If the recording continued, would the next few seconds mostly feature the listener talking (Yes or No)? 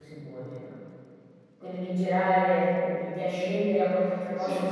Yes